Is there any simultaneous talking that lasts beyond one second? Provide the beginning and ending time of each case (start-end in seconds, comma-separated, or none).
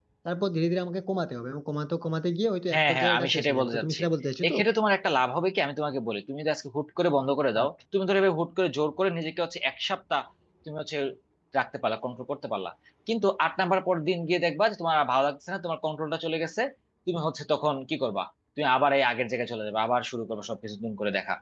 2.7-4.0